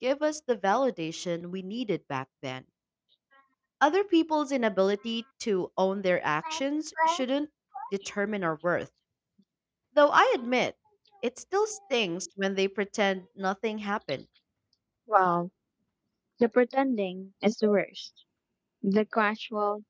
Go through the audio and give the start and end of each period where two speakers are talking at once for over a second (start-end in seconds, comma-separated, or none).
none